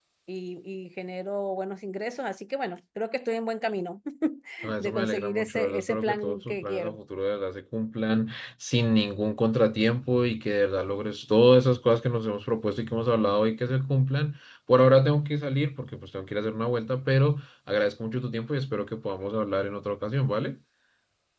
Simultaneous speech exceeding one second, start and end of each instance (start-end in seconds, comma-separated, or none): 4.8-7.0